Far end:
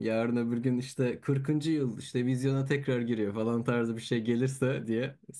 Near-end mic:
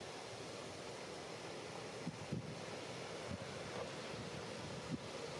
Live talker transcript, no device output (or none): none